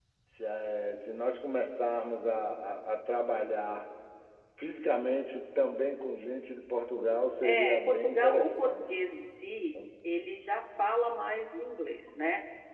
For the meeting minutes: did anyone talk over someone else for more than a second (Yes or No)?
Yes